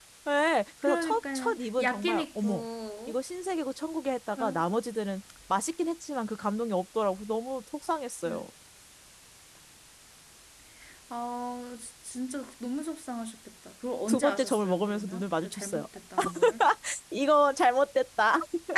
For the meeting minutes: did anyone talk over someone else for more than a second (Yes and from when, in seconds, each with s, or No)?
Yes, from 0.8 s